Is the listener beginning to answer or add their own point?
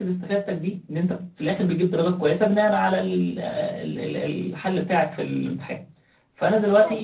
No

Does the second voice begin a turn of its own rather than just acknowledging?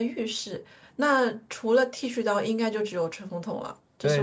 Yes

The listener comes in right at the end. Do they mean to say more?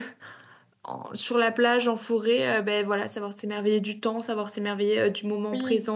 Yes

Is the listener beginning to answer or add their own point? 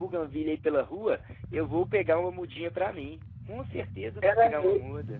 Yes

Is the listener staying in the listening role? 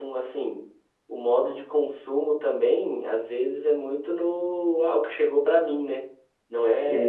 Yes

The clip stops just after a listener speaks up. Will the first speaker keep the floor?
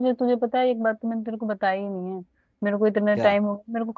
Yes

